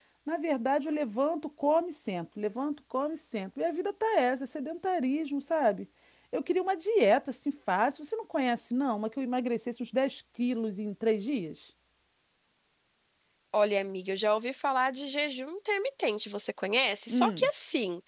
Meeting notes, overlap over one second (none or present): none